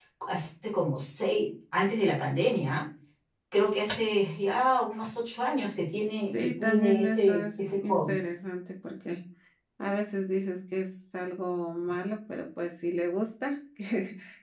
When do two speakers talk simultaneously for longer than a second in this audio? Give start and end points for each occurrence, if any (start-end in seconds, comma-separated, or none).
6.4-8.2